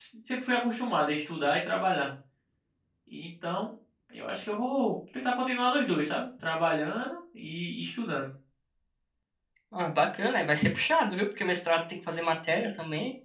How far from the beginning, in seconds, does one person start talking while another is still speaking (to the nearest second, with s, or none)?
none